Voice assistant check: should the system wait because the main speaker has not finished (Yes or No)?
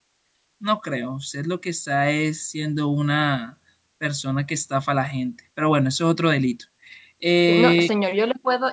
No